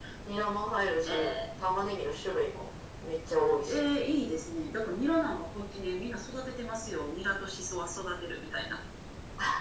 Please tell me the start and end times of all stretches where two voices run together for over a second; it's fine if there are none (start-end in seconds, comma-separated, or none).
none